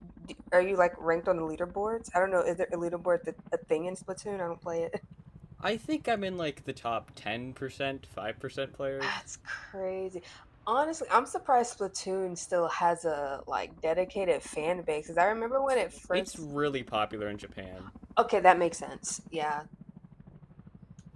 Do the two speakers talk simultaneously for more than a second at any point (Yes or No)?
No